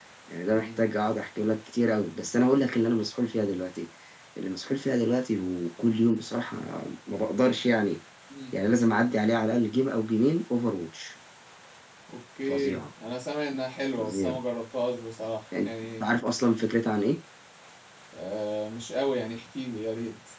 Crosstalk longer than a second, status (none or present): none